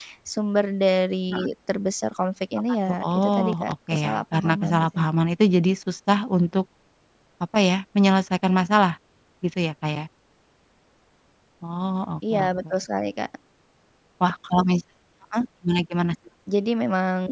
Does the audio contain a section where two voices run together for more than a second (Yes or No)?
Yes